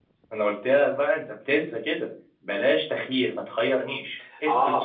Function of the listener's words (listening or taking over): taking over